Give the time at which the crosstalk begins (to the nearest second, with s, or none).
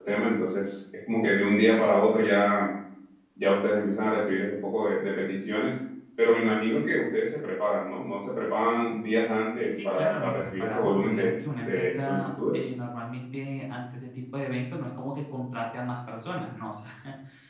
10 s